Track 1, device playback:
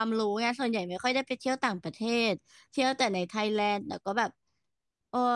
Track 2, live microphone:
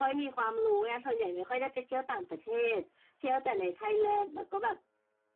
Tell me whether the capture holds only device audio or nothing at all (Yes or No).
Yes